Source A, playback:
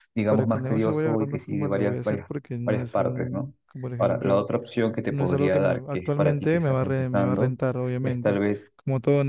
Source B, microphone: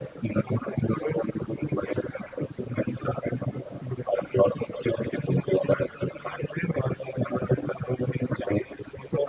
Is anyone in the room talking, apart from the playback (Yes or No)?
No